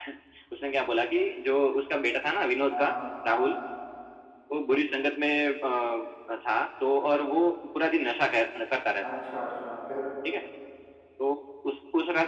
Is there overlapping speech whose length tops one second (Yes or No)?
No